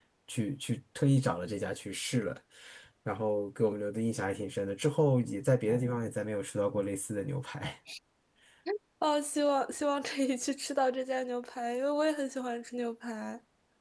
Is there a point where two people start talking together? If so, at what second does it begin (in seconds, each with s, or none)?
none